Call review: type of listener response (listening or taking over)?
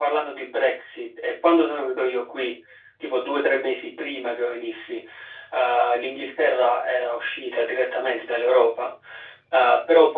listening